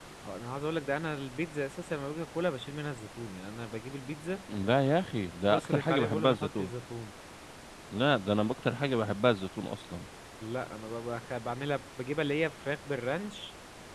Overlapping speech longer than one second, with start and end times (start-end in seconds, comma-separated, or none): 5.5-6.7